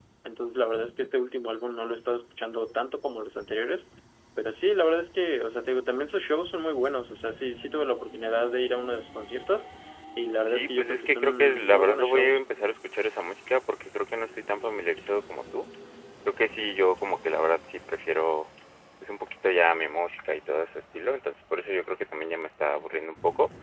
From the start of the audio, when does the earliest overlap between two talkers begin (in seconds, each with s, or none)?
10.4 s